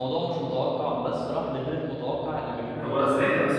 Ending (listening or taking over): taking over